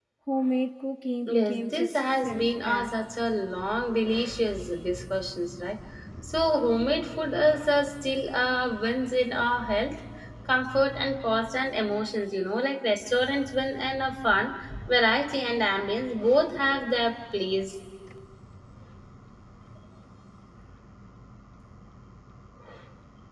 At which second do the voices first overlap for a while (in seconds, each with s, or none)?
1.3 s